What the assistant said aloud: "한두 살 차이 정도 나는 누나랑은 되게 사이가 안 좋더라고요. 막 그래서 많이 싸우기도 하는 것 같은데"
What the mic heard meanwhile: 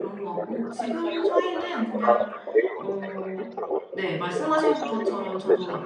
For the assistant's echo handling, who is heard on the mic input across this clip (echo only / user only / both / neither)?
both